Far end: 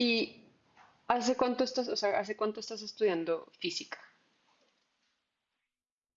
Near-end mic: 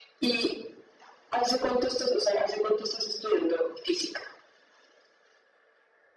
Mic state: echo only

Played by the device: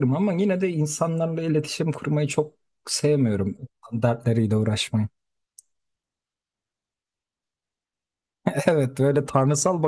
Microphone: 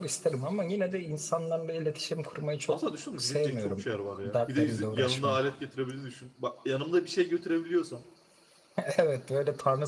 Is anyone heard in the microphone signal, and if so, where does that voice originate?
both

